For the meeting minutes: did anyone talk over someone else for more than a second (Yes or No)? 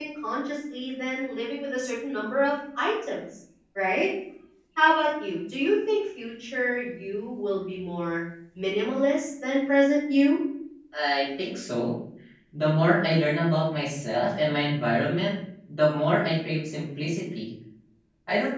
No